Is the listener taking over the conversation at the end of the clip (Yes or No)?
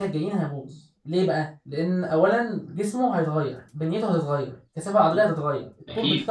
No